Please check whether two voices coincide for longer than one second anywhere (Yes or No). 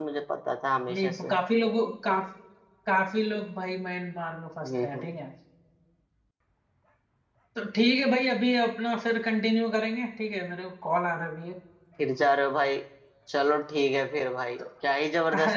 No